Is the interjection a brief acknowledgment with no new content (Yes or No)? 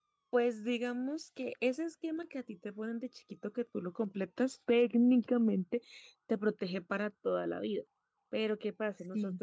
Yes